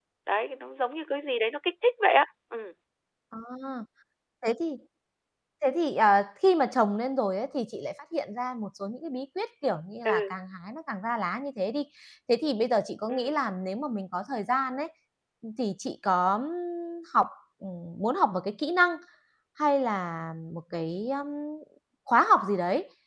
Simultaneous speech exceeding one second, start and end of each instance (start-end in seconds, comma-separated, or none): none